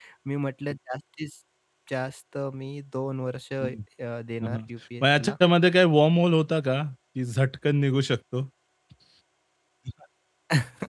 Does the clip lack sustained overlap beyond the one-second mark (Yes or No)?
Yes